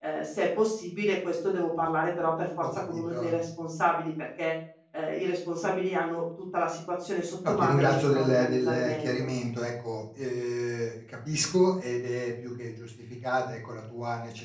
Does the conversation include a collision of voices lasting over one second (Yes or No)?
Yes